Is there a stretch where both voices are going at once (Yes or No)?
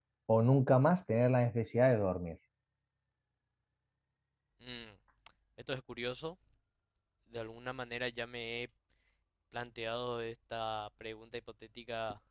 No